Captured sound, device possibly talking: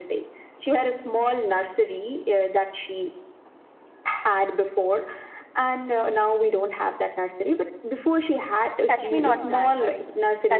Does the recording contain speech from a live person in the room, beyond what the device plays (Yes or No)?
Yes